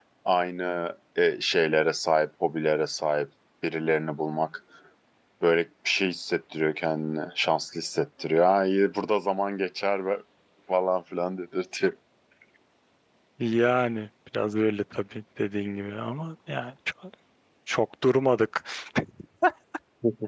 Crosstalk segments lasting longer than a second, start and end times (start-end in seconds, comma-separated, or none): none